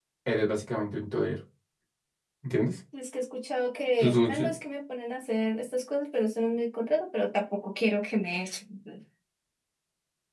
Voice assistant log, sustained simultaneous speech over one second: none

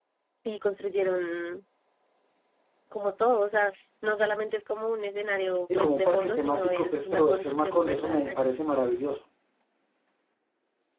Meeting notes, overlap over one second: present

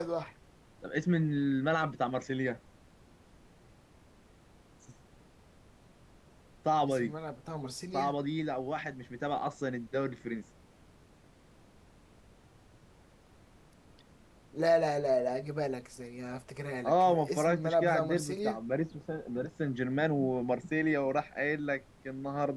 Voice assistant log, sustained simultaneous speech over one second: present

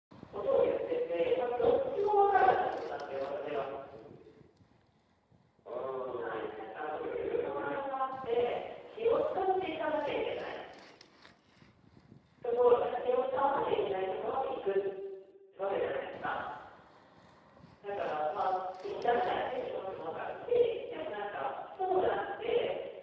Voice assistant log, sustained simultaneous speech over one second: present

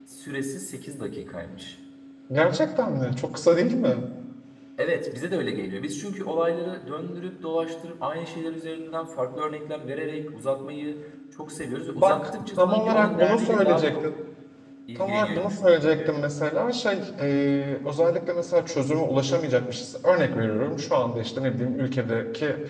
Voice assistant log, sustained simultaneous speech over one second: present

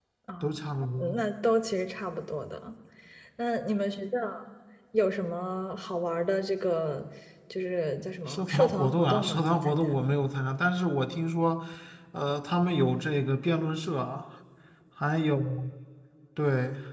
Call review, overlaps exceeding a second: present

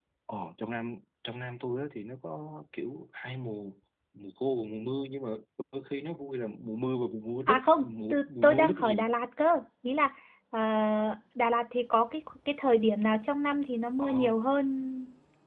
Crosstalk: present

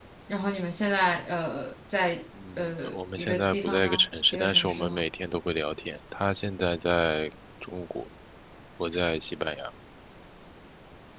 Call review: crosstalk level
present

